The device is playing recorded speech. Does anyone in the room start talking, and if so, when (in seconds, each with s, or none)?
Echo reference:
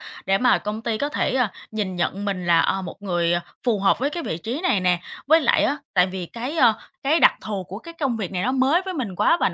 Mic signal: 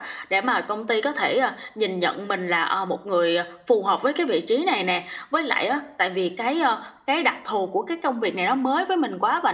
none